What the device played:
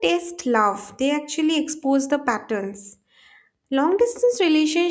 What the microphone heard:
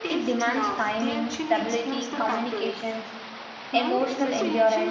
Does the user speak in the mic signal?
Yes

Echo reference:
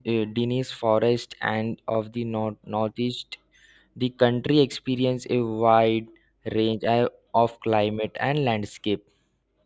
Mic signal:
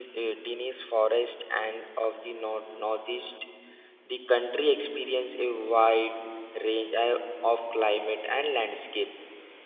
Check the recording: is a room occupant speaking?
No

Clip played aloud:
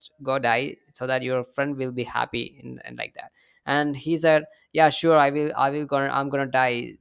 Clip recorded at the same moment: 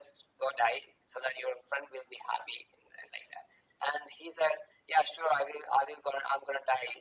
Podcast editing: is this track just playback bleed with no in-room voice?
Yes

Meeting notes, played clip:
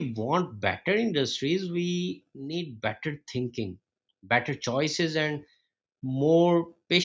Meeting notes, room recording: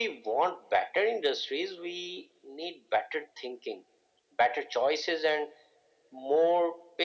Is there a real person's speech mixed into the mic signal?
No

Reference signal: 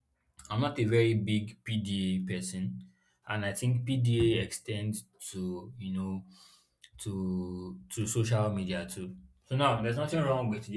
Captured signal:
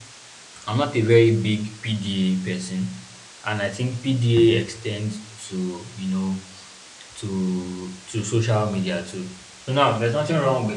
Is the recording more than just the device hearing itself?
No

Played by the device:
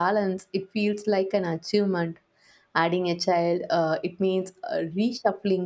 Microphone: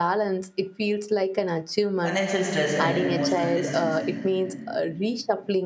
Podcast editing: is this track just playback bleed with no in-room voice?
No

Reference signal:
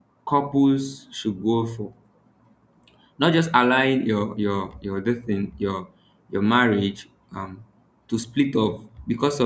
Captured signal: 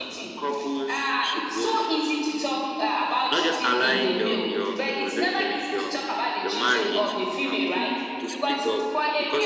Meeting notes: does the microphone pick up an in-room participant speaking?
Yes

